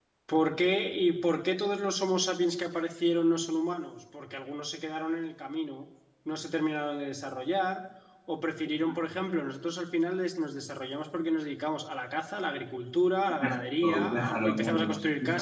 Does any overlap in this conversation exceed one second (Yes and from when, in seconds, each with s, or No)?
Yes, from 13.3 s